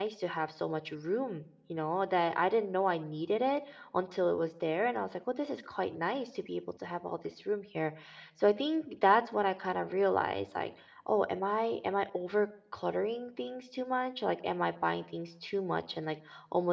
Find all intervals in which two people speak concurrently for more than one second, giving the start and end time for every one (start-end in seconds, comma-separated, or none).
none